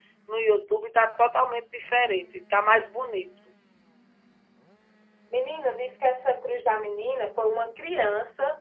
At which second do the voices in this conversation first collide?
none

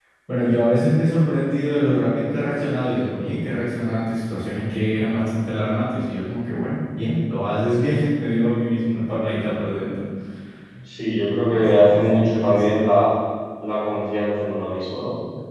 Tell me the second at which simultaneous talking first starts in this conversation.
11.5 s

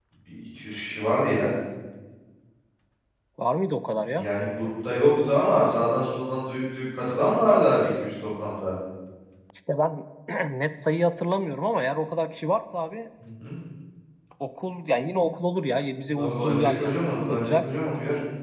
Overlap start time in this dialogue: 16.1 s

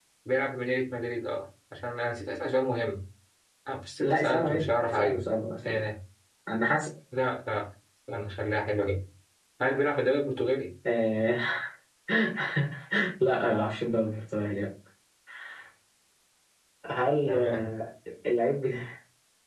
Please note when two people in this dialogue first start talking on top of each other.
4.0 s

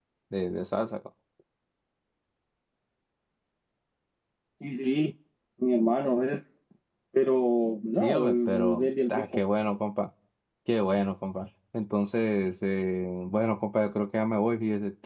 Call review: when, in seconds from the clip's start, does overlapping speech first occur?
7.9 s

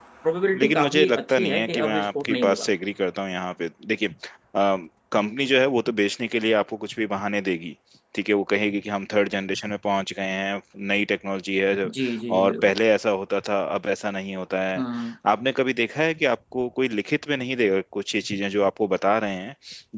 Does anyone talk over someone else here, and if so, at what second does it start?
0.6 s

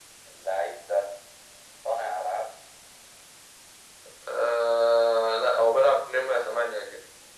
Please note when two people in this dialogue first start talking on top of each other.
none

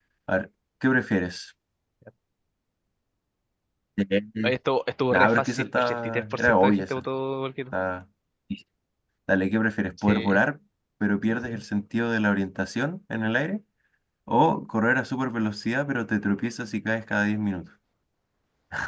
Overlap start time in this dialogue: 5.1 s

